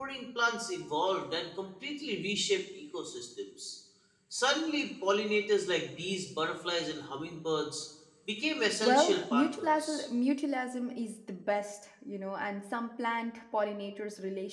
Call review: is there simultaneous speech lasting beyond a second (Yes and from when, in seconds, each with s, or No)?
Yes, from 8.8 s